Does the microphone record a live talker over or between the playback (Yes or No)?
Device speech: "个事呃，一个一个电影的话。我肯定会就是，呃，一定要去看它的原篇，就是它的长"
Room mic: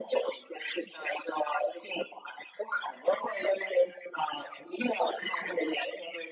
No